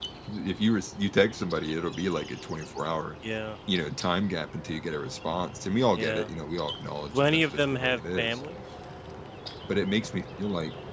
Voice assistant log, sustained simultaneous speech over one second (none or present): present